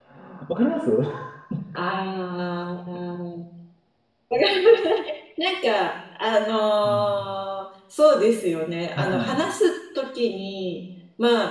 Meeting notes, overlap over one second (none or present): none